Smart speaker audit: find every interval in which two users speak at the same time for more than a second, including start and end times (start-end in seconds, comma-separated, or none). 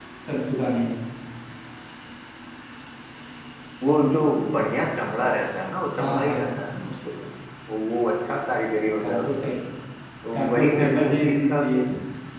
10.3-11.8